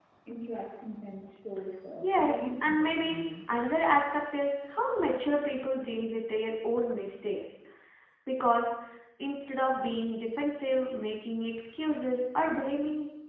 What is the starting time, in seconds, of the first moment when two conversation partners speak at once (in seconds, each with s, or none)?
2.0 s